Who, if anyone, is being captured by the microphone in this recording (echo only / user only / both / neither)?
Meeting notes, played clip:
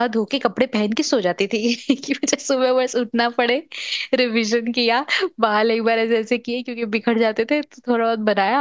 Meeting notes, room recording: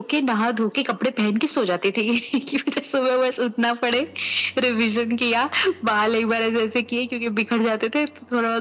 echo only